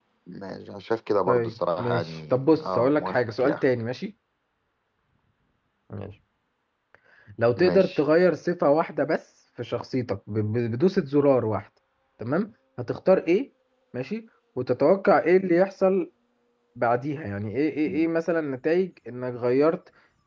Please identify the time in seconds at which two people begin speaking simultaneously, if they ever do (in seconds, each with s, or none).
1.3 s